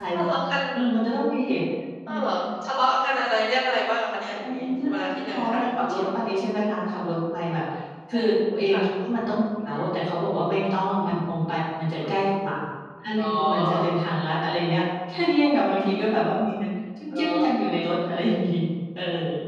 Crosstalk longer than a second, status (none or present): present